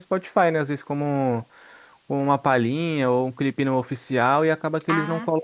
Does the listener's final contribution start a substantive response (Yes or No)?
No